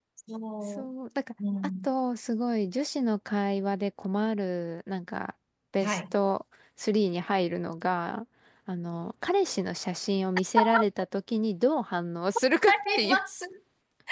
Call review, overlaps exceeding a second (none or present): none